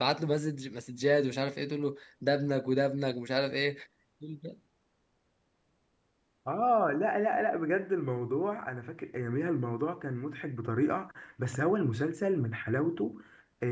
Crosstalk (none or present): none